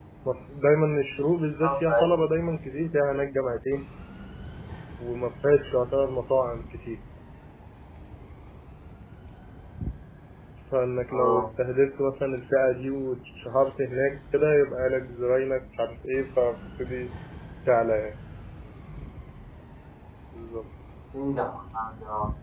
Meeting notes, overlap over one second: none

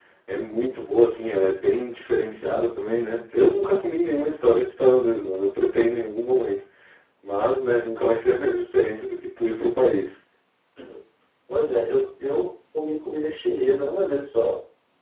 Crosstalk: none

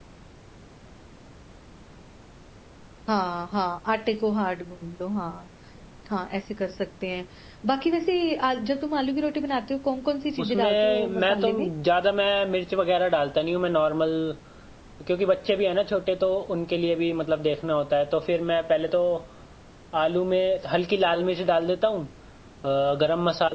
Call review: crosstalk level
present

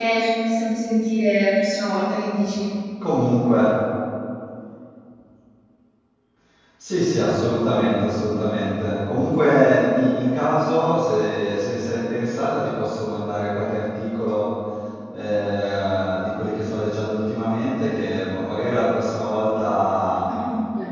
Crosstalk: none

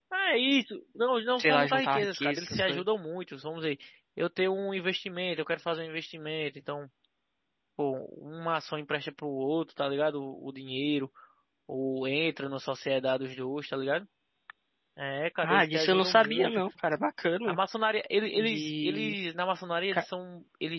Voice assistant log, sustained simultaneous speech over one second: present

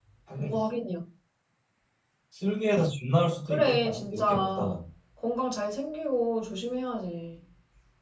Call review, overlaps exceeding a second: present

